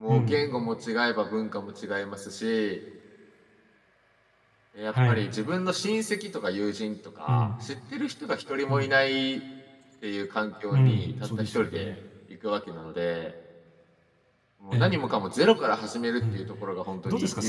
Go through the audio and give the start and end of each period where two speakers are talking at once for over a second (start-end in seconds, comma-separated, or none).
10.7-11.9